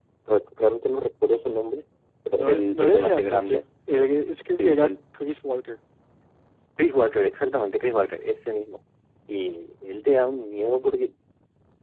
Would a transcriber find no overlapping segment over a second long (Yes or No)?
No